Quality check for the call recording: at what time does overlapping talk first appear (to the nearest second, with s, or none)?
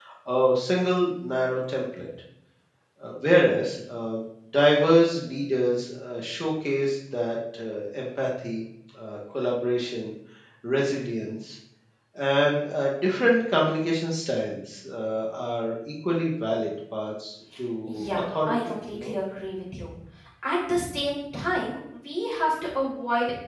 18 s